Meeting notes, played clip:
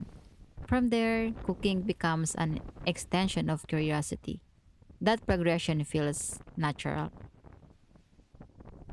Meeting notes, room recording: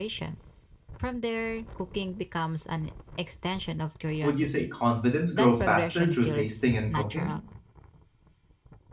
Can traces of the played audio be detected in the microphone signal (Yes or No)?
Yes